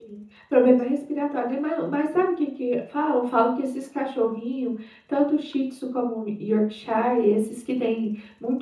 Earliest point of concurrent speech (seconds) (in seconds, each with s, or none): none